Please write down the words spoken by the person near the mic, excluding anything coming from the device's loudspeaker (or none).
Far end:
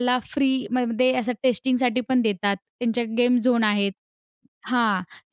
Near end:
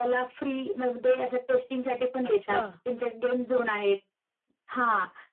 अच्छा!